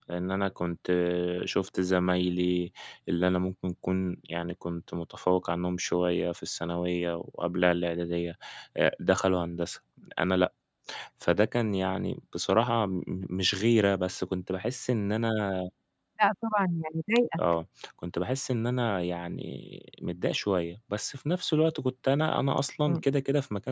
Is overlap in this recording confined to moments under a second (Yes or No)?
Yes